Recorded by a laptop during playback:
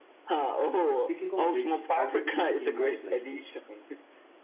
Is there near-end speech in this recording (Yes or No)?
Yes